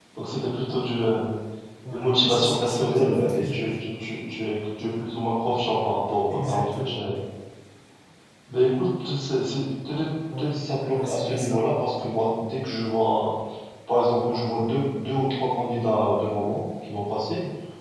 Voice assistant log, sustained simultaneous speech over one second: present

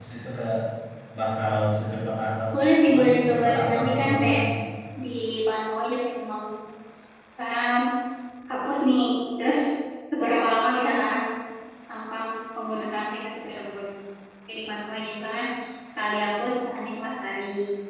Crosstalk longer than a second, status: present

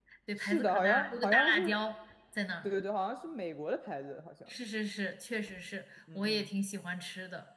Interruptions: present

